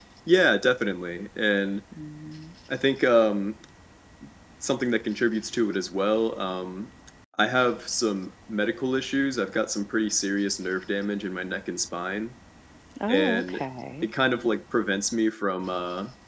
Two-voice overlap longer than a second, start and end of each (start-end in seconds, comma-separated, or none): none